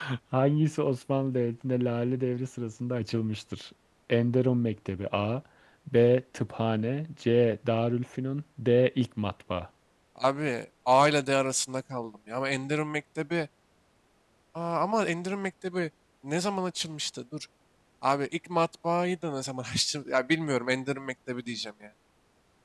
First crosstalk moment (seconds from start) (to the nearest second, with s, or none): none